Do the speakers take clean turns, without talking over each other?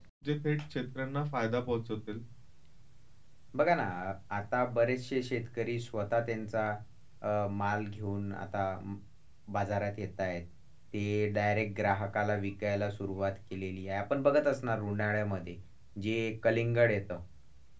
Yes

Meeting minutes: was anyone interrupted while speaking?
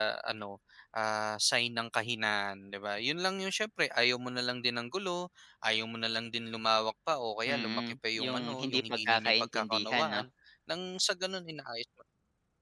Yes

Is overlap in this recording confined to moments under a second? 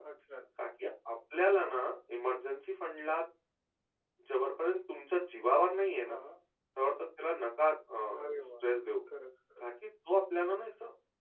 Yes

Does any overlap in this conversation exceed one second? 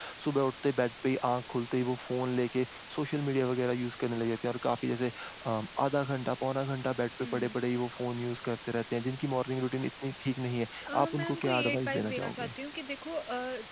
Yes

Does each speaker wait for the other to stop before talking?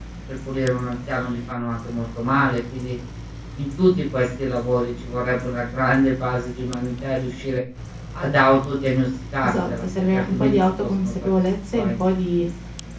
No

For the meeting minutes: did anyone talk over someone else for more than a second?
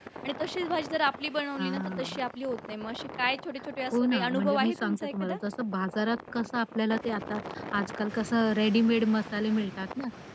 Yes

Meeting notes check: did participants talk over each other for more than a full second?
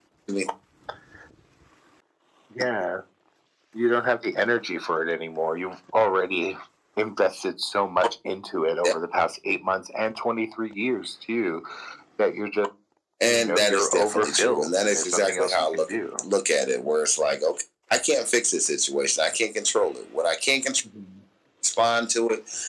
Yes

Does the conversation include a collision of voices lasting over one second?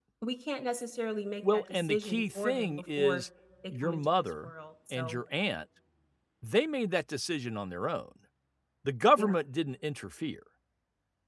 Yes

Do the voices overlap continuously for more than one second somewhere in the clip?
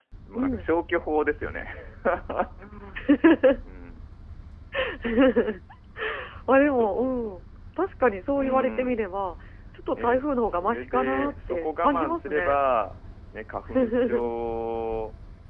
Yes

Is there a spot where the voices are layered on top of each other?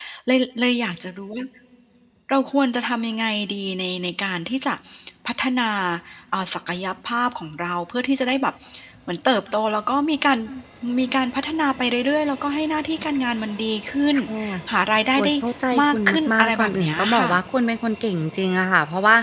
Yes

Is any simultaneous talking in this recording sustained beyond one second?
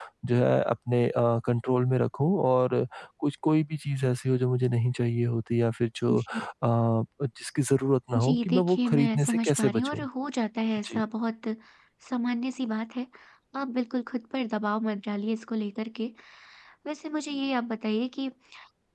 Yes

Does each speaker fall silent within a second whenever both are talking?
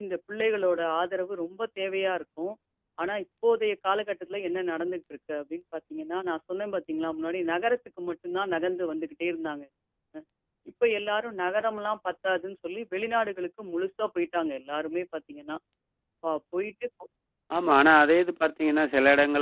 Yes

